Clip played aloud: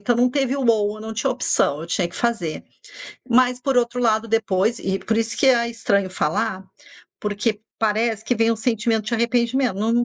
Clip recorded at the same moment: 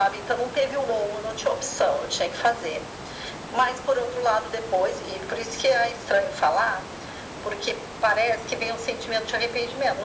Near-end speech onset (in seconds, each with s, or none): none